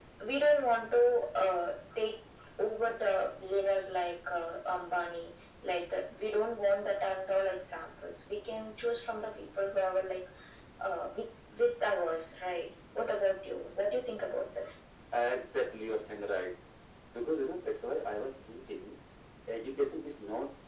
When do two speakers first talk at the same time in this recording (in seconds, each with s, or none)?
none